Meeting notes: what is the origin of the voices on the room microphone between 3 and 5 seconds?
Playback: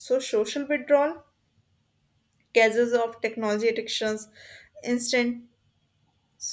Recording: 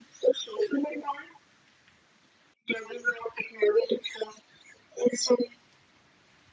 echo only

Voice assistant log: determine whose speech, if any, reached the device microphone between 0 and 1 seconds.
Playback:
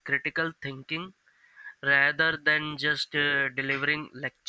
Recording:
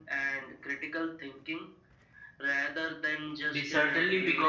echo only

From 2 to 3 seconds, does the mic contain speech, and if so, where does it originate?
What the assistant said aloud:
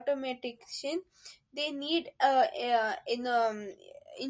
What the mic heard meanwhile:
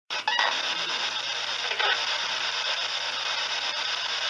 neither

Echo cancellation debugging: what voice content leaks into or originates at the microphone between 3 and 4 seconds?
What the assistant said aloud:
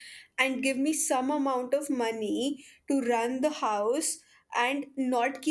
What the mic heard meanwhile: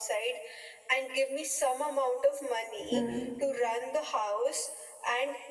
both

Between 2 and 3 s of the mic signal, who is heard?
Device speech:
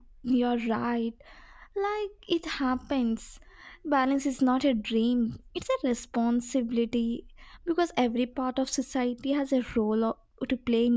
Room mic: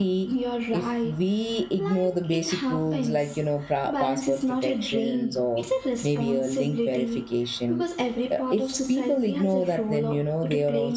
both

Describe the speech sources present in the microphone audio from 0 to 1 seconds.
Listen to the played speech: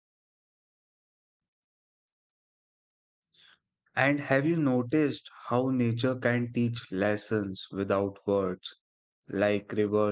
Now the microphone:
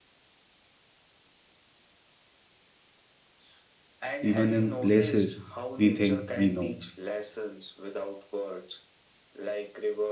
neither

